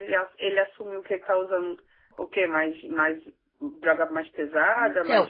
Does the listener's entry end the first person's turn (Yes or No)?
Yes